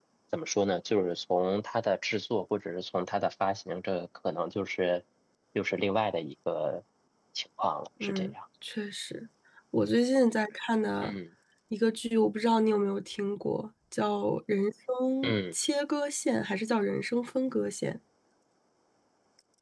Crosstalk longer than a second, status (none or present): none